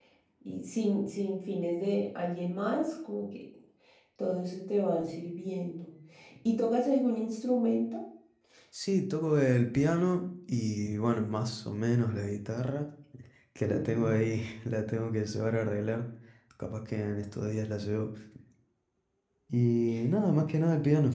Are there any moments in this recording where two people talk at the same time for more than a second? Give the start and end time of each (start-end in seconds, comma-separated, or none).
none